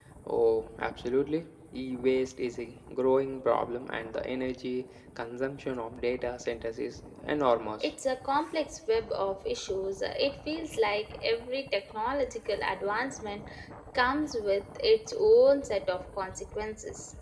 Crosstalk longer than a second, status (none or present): none